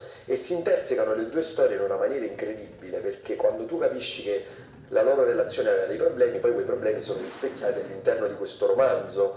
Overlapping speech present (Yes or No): No